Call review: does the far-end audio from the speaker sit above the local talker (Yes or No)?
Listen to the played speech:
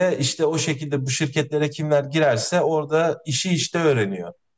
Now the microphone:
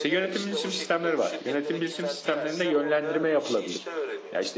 No